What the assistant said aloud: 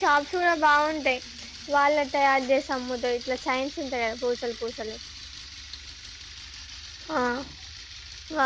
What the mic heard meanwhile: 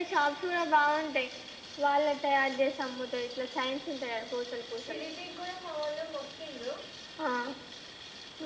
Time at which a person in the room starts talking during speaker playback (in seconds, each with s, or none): 4.8 s